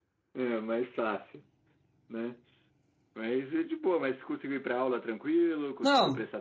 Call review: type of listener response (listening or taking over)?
taking over